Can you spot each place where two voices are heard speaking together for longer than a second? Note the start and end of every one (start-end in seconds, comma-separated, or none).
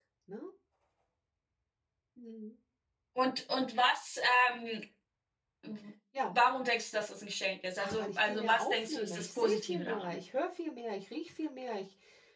7.8-10.2